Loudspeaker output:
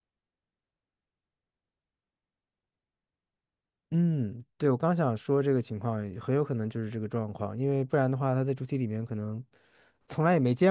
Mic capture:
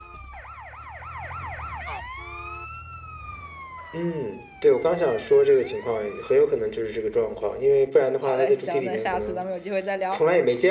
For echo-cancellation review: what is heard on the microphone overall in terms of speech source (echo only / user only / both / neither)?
both